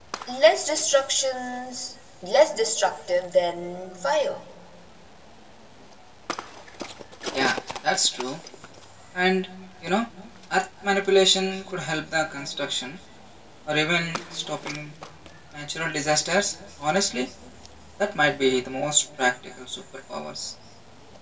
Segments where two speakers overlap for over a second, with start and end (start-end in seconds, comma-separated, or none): none